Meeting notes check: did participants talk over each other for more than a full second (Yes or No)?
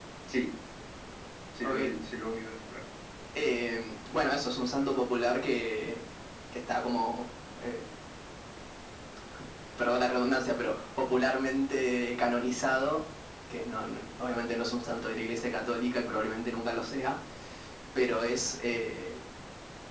No